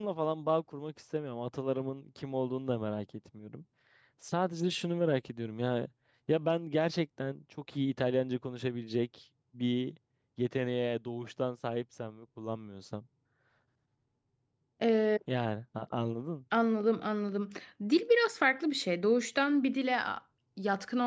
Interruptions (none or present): none